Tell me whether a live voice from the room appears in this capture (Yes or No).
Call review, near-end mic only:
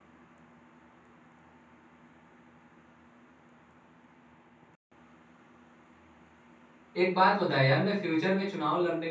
Yes